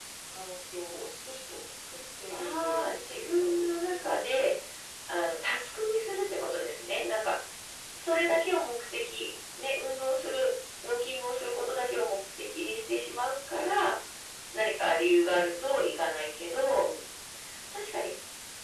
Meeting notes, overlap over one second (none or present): present